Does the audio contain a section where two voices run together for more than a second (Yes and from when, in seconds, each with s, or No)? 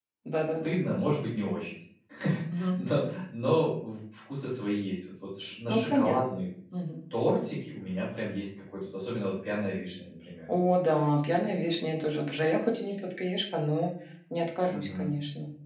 No